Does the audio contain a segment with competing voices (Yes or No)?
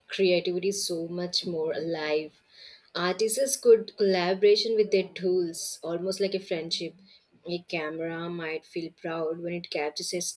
No